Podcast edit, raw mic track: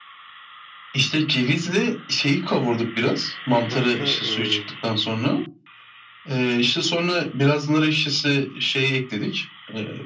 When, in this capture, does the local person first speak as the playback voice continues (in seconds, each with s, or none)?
3.5 s